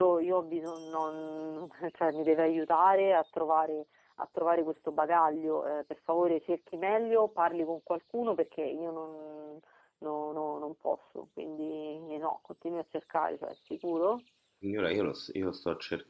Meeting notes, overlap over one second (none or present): none